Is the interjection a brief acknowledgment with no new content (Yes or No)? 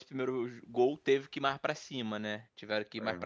Yes